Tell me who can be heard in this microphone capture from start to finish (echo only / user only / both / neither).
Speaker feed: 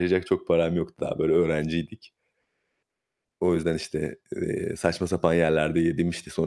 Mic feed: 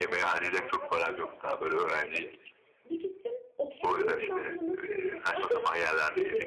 both